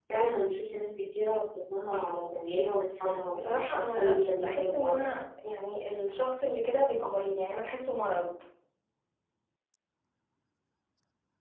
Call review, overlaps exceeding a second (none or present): present